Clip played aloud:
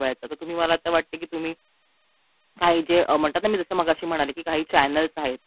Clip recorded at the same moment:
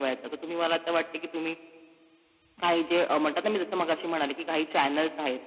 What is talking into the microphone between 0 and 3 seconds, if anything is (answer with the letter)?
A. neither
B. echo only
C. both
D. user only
B